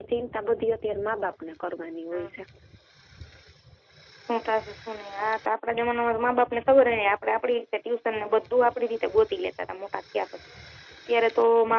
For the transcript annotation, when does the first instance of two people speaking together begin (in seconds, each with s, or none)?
none